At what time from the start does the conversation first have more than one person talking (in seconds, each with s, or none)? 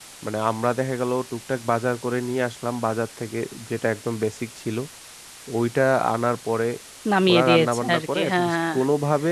7.3 s